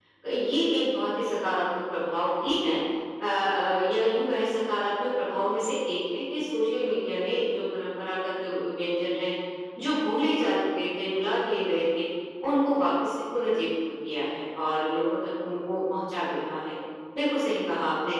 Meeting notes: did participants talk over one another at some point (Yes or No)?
No